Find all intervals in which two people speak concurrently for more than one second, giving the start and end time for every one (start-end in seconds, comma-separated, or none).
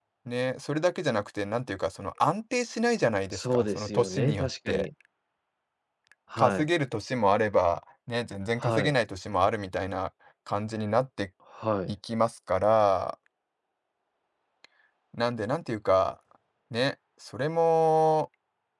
3.3-4.9